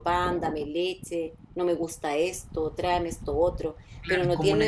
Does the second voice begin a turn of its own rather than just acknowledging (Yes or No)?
Yes